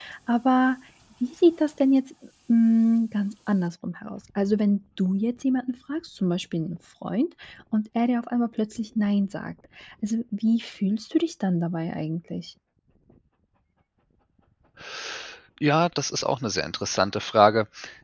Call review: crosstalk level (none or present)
none